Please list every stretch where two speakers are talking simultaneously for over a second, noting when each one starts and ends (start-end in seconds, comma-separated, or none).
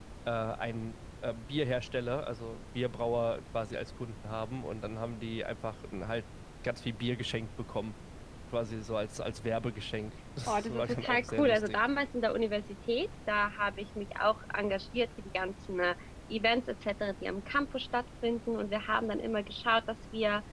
10.5-11.8